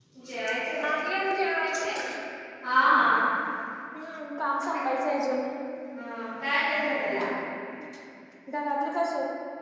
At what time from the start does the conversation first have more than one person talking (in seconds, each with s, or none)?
none